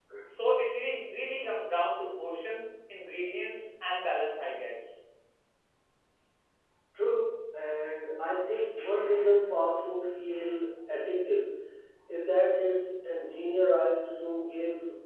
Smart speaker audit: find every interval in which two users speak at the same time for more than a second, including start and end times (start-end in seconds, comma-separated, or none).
none